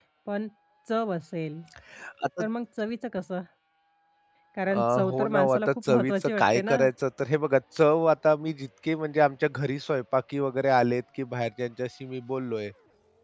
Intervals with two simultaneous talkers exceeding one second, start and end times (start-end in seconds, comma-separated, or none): 4.7-6.8